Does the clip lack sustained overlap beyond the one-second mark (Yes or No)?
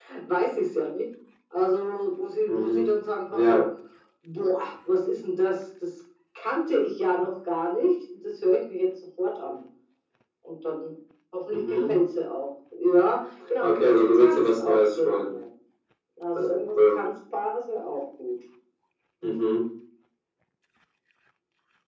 No